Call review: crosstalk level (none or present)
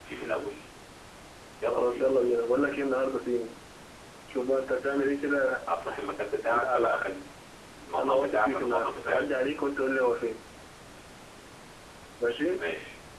present